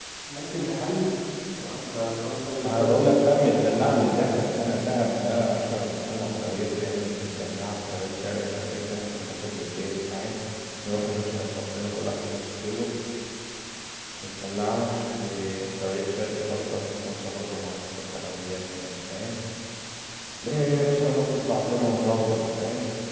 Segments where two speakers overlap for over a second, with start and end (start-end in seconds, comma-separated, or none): 2.6-4.1